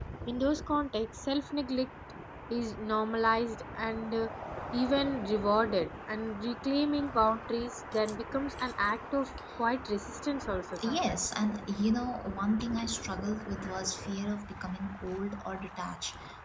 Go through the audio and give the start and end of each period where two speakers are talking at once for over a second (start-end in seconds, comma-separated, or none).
none